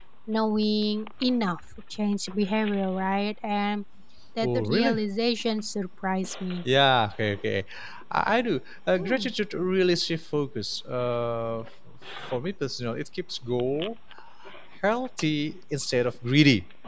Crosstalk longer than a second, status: none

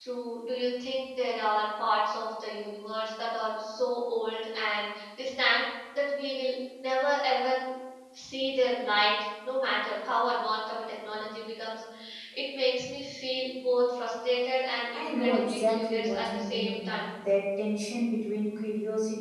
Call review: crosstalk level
present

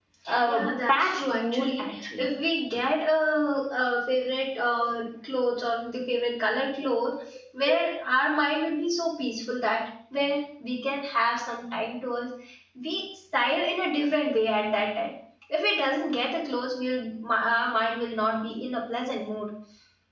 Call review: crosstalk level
present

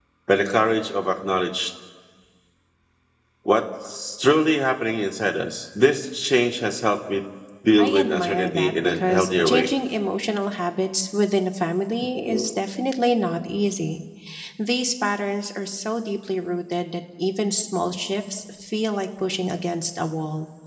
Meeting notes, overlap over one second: present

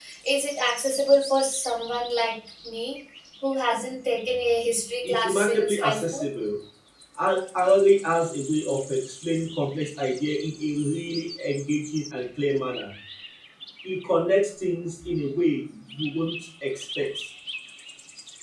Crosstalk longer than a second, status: present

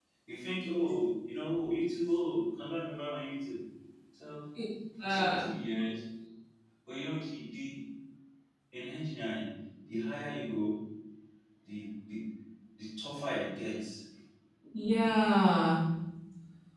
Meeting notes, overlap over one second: none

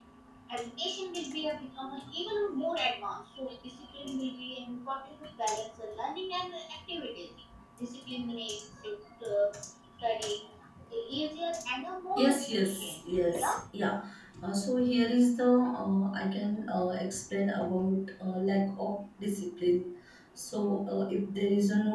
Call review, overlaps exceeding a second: present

